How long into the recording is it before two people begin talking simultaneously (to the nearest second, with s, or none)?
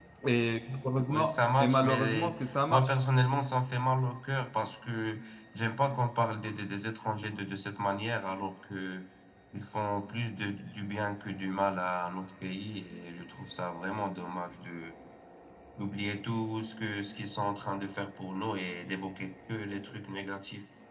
1 s